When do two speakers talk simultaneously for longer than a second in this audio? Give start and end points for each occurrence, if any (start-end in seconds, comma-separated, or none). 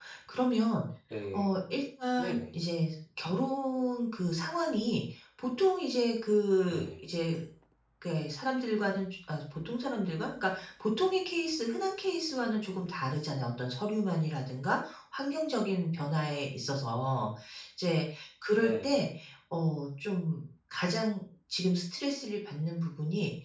none